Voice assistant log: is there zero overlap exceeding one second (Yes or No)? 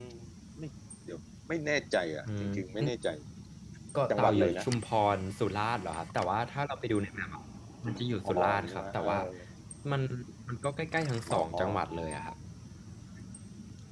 No